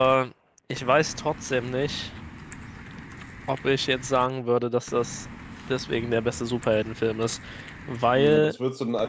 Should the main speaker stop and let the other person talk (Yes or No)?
Yes